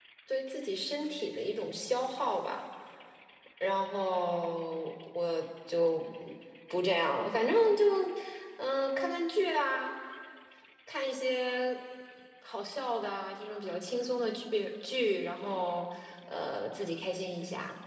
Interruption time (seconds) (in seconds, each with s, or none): none